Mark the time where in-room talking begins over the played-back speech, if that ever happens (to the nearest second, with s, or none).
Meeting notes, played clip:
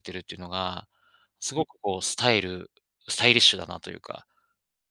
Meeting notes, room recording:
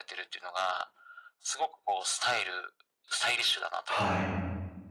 4 s